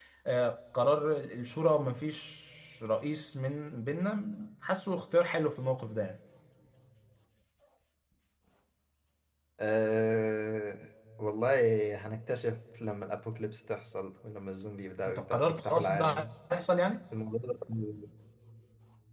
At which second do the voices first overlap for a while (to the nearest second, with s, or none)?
15 s